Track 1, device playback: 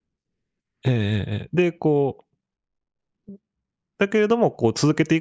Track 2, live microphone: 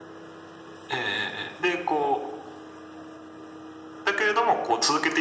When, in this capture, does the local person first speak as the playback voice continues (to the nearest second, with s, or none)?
none